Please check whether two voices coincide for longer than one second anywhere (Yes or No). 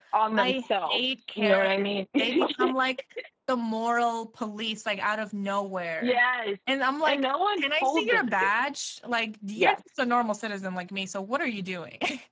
Yes